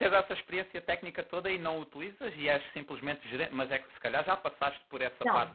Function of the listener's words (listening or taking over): taking over